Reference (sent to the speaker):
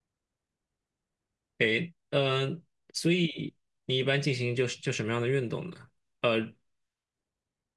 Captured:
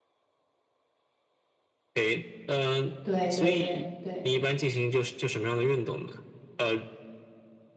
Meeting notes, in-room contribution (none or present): present